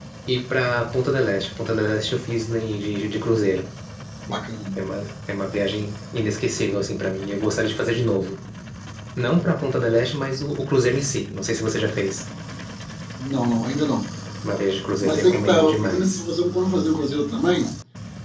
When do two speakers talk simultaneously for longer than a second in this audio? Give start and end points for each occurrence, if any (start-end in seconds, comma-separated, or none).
15.0-16.2